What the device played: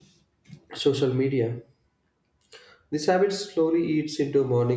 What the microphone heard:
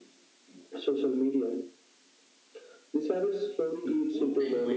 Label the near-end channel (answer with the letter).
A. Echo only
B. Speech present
B